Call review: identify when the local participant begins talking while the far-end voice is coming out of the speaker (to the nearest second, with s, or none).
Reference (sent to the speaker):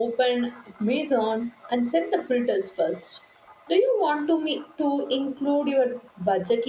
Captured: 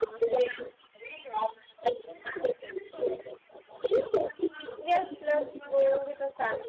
5 s